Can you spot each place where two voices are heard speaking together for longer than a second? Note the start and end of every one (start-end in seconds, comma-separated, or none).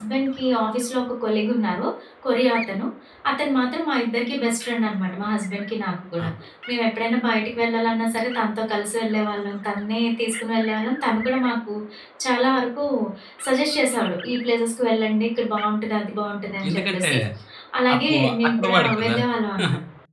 18.0-19.2